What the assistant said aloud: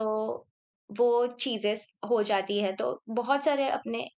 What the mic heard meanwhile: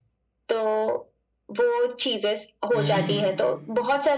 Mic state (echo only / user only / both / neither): both